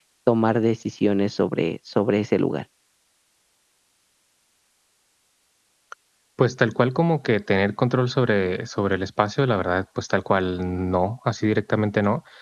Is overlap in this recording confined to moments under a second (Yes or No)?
Yes